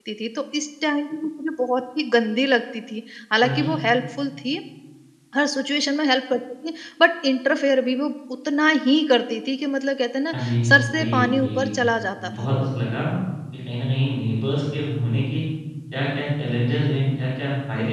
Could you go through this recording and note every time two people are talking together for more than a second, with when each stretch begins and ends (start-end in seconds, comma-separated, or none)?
10.3-11.7